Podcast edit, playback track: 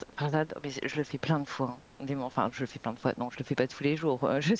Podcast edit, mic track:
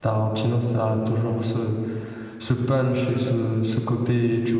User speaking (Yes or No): Yes